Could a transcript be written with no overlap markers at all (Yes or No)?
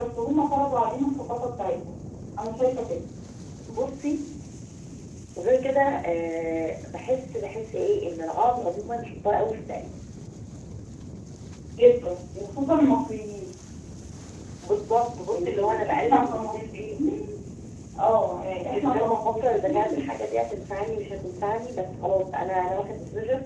No